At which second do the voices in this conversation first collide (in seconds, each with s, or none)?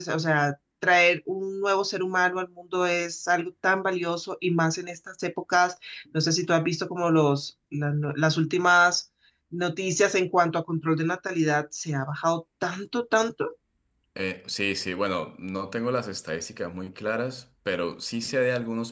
none